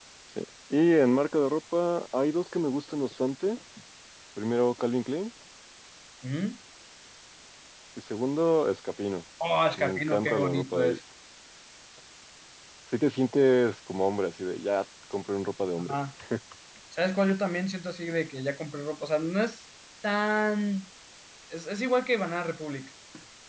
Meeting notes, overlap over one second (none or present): present